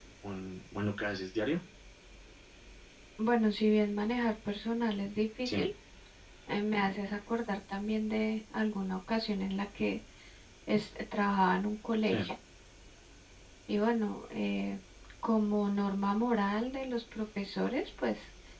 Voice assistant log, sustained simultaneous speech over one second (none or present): none